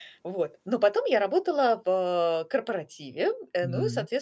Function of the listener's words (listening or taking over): listening